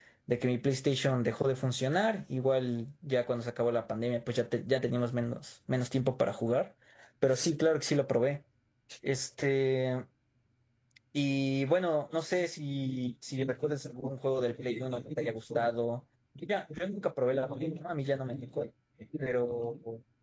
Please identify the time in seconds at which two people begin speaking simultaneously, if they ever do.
none

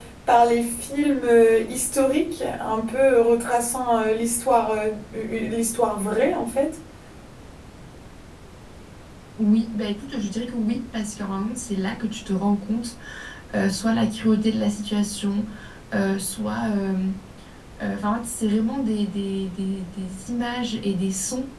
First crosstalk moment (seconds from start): none

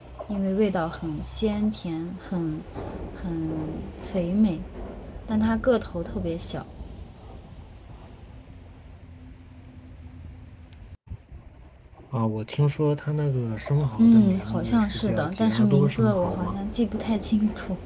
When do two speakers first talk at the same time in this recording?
14.0 s

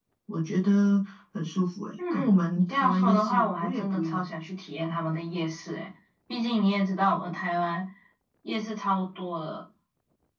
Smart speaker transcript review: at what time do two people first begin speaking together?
2.0 s

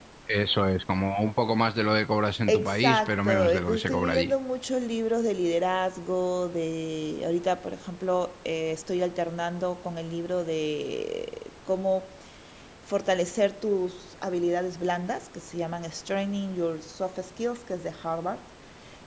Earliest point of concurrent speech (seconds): 2.5 s

